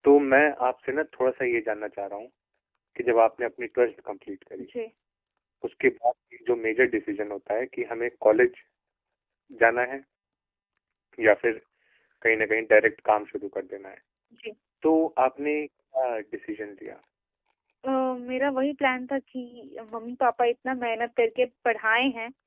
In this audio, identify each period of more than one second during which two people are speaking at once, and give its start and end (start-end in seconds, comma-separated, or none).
none